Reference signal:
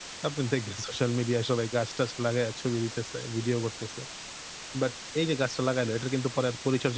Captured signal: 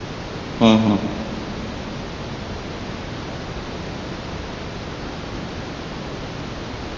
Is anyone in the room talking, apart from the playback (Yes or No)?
Yes